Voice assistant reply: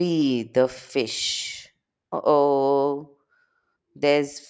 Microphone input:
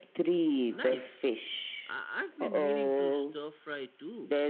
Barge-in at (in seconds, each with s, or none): 0.7 s